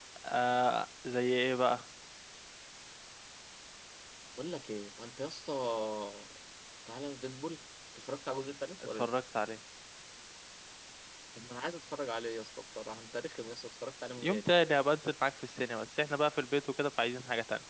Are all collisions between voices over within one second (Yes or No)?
Yes